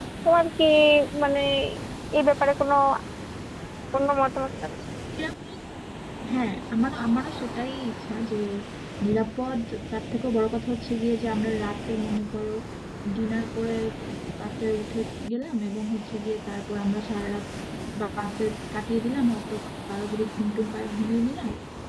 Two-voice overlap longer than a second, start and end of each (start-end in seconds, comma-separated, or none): none